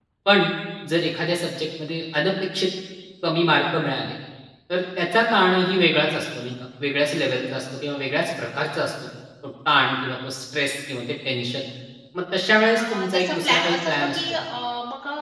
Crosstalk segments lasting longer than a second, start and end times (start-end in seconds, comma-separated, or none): 12.8-14.2